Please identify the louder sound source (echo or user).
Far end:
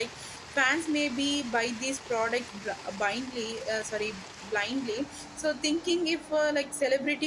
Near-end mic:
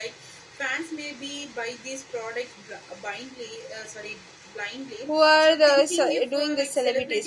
user